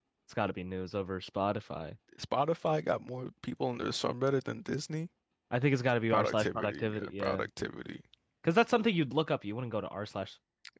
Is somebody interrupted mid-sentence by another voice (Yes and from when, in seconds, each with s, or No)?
Yes, from 6.1 s